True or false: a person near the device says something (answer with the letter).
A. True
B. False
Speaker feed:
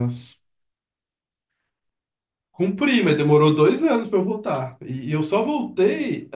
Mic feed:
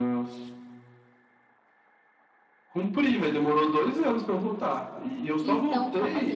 A